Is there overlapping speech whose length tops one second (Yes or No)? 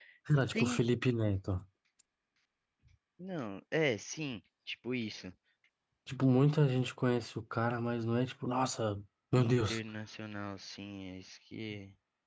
No